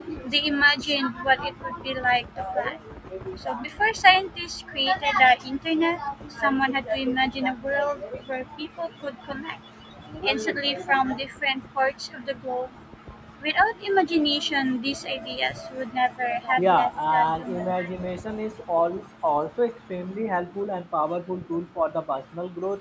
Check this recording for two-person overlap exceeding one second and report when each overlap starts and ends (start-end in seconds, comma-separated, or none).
16.6-17.9